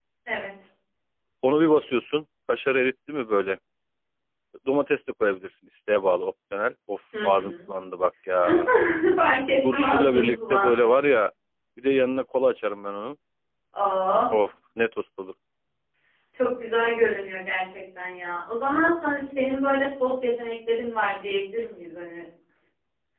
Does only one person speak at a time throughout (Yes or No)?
No